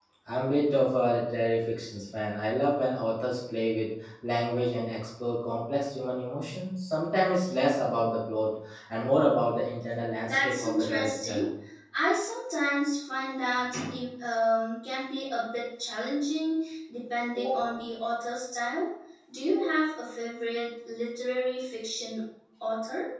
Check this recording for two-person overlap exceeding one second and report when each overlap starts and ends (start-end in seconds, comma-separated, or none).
10.2-11.5